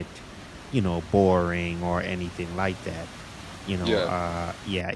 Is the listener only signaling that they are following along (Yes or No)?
Yes